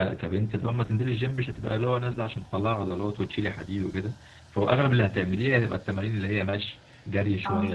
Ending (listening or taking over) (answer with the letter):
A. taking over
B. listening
B